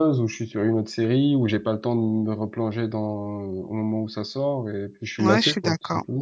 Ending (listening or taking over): taking over